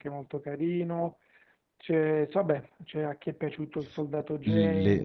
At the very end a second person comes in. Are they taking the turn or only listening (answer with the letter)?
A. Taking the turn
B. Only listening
A